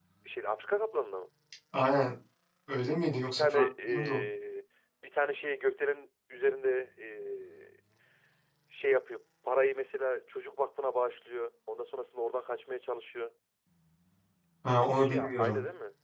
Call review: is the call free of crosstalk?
No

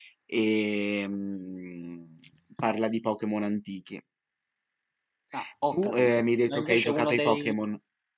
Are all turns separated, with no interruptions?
No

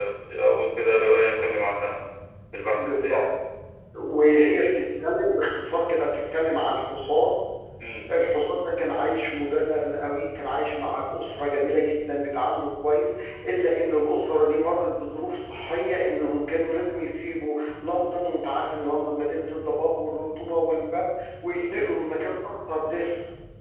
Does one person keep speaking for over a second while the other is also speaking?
No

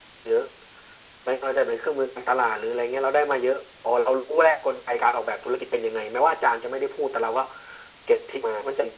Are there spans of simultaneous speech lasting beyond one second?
No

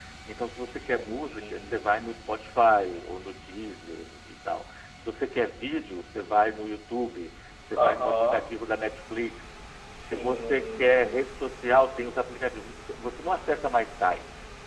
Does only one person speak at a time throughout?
No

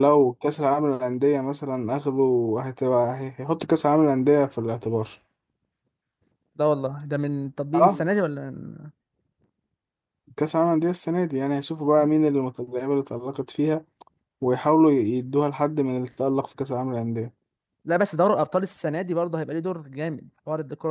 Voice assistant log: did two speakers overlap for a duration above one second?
No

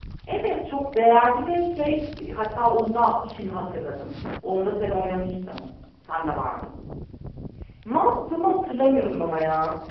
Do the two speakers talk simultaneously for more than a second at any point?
No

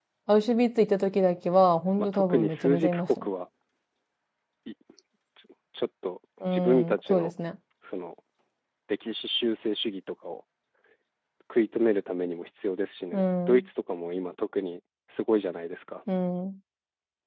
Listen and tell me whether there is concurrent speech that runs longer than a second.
Yes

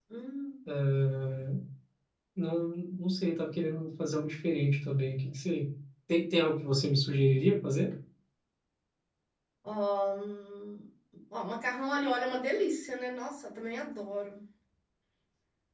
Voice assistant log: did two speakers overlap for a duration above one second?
No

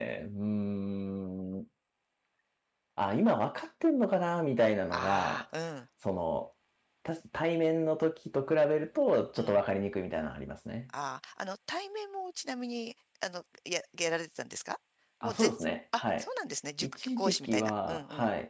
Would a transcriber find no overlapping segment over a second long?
No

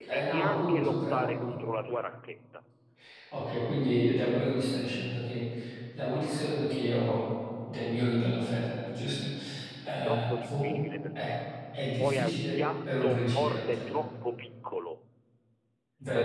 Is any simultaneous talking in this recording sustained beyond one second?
Yes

